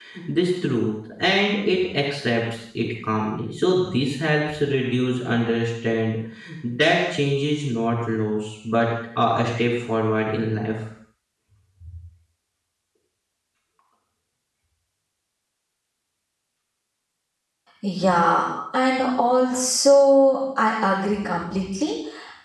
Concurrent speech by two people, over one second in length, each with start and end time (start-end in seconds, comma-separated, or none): none